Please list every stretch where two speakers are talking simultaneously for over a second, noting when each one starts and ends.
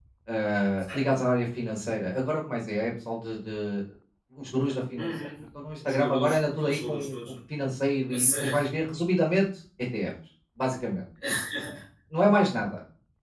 5.8-7.2

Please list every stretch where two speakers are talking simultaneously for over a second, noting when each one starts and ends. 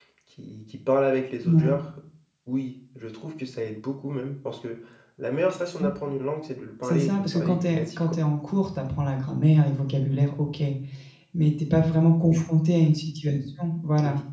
6.8-8.2

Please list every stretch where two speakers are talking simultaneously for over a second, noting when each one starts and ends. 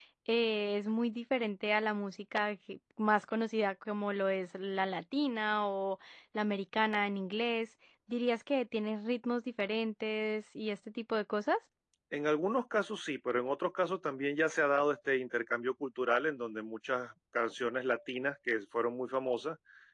none

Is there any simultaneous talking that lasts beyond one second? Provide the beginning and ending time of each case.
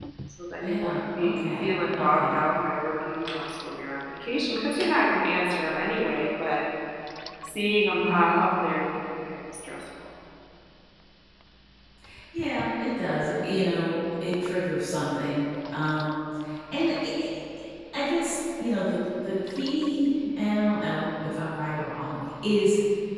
0.6-2.4

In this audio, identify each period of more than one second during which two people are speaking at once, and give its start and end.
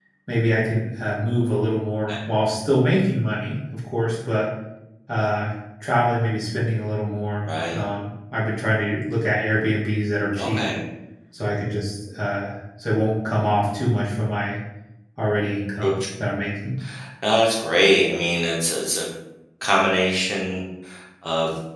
none

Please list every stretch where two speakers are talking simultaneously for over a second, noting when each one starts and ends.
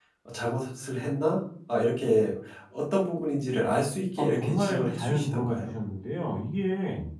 4.2-5.7

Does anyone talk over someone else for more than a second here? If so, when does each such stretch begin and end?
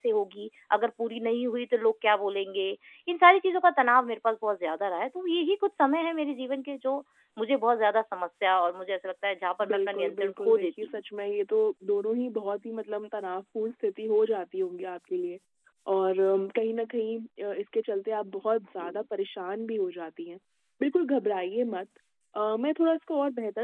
9.7-11.0

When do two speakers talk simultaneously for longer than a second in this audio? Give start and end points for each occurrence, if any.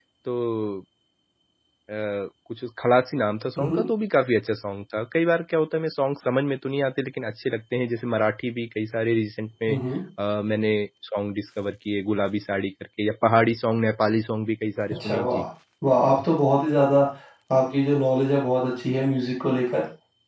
none

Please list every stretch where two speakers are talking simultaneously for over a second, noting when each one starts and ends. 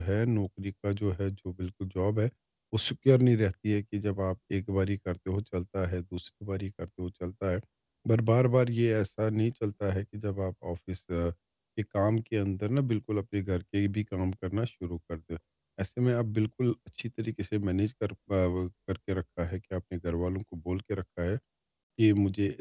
none

